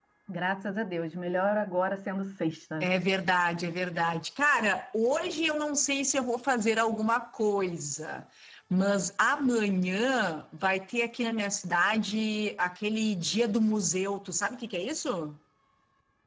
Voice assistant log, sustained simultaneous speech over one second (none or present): none